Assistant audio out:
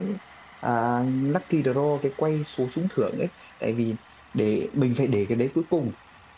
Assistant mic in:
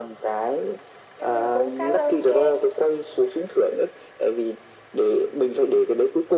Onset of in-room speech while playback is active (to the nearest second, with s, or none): 1 s